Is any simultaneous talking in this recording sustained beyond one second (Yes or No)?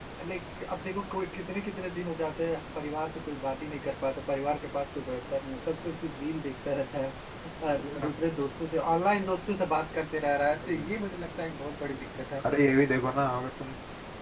No